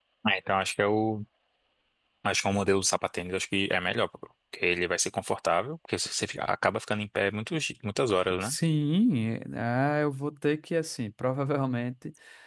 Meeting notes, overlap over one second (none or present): none